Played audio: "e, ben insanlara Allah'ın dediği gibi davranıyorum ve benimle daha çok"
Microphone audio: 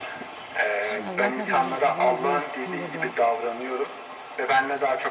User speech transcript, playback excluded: Ya zaten bizim kızımızın yapısında da

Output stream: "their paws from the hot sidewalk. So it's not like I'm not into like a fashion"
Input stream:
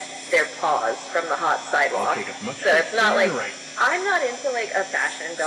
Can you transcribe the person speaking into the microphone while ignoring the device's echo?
I'll take as much as I can right

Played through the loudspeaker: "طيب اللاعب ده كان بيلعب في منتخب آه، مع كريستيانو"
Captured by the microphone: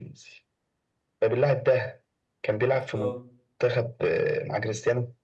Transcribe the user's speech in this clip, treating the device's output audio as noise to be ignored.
اختار

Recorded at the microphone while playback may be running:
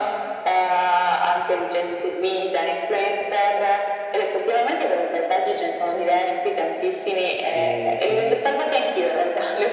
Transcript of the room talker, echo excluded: E quindi

